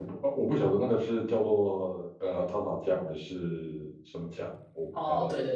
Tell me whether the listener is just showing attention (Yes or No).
No